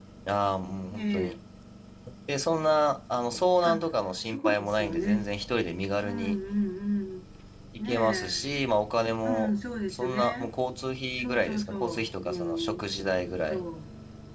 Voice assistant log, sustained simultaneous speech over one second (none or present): present